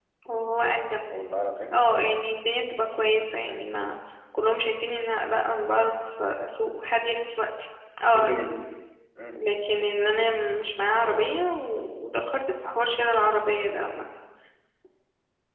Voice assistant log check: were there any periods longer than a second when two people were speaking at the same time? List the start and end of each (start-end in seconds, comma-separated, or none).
none